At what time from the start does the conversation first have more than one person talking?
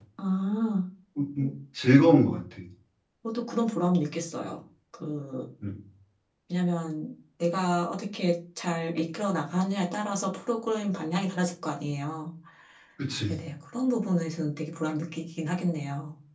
none

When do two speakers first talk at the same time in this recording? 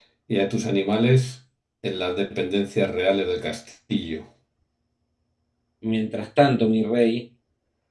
none

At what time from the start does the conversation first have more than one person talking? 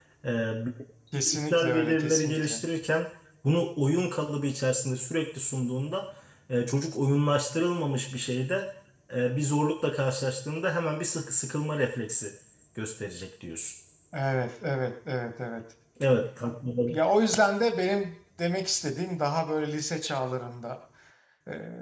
1.2 s

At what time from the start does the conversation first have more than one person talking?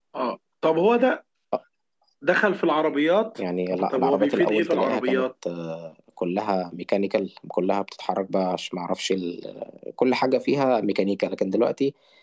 3.9 s

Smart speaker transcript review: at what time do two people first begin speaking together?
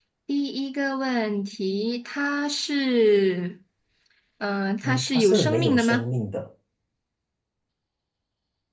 4.8 s

